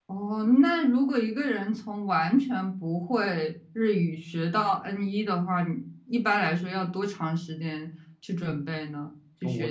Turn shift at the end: Yes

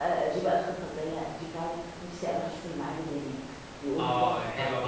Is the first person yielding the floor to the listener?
Yes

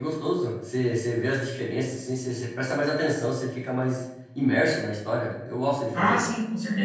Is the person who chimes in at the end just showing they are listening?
No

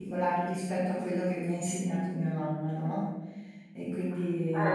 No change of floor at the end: No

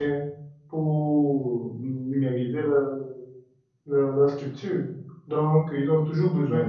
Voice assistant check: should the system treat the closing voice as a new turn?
No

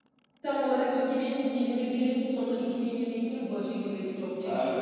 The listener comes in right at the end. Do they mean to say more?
Yes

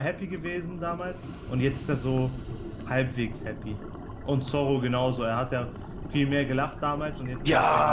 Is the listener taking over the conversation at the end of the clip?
Yes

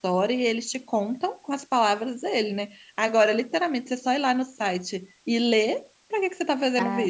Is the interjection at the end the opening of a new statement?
Yes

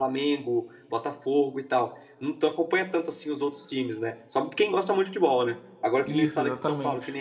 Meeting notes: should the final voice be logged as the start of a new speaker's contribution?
No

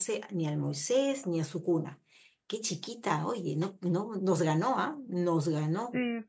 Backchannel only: No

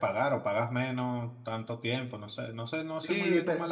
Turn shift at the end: Yes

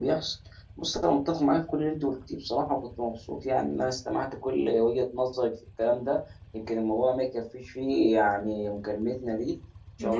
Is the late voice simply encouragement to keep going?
No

